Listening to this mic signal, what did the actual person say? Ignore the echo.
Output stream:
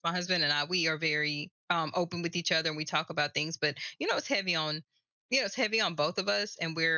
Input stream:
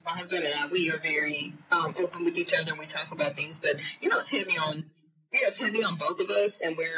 none

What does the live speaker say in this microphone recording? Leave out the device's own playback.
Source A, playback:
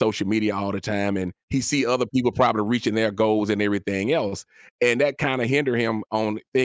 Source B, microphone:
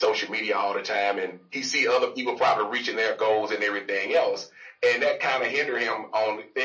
none

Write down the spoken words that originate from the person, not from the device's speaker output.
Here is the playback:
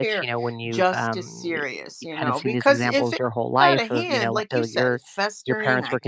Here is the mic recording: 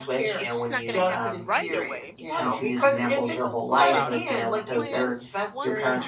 It's just not going to happen right away, but it's something to be hopeful about. I have this plan. once

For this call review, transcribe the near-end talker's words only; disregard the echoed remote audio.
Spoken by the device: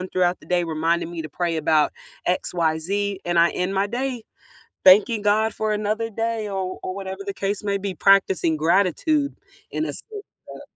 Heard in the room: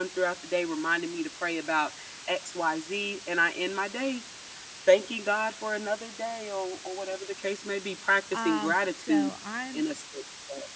Um, so I'm

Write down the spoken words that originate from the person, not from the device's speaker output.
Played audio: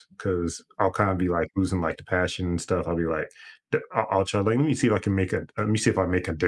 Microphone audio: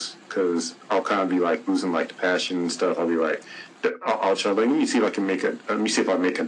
none

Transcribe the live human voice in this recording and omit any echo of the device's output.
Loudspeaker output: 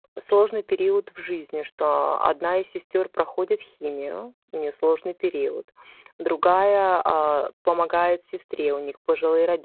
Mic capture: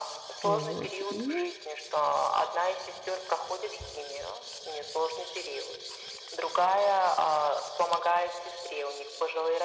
Вот. И

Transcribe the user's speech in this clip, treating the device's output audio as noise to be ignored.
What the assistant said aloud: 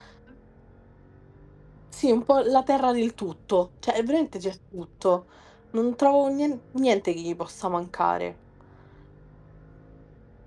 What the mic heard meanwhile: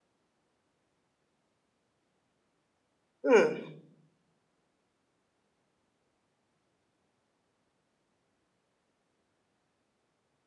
Mm,

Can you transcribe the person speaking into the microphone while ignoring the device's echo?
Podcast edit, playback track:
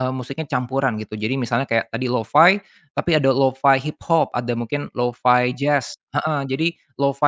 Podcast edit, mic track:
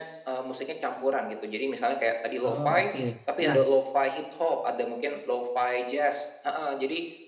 Oh, oke. Nah,

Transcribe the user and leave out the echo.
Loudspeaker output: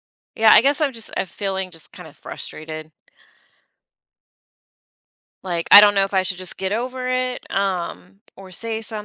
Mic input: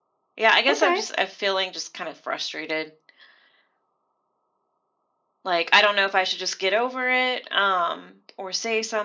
Okay.

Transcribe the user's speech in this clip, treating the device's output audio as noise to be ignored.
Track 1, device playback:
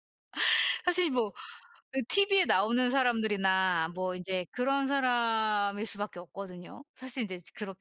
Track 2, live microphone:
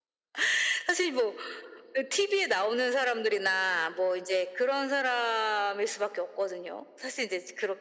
none

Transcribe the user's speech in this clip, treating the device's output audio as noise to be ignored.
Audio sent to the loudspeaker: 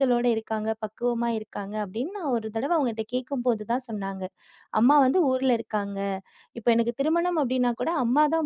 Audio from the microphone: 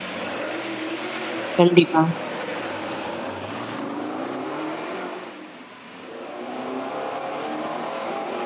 கண்டிப்பா,

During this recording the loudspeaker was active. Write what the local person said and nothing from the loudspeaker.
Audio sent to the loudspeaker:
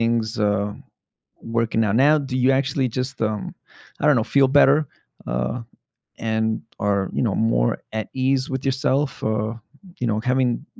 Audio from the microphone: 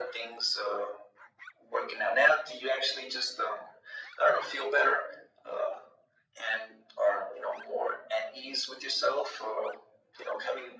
none

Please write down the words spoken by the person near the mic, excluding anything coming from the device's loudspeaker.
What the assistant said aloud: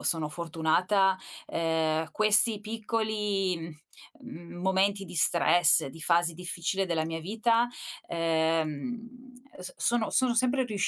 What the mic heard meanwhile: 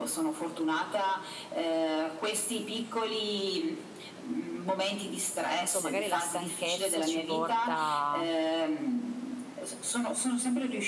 non so, magari la stanchezza ci porta

